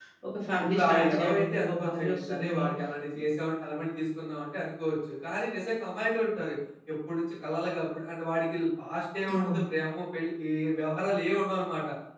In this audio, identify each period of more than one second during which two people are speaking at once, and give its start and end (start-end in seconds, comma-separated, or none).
0.7-2.6